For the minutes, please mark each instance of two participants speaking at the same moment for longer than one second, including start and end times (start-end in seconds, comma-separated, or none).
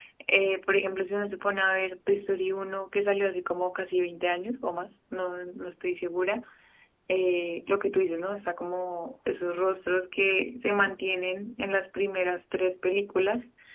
none